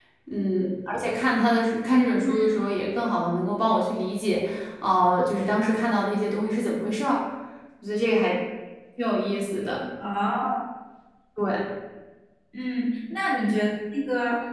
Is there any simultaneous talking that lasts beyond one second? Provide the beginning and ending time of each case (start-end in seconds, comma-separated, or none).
none